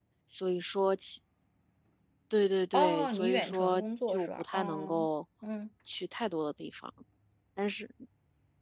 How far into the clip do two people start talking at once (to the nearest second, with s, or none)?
3 s